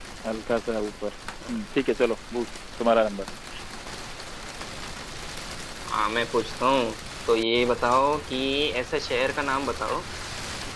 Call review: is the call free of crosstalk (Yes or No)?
Yes